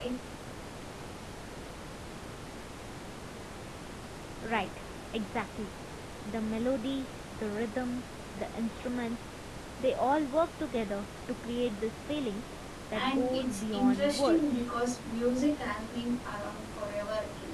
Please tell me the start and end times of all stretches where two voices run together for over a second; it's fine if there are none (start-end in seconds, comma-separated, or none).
12.9-14.6